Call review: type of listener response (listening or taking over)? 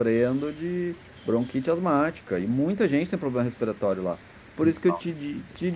listening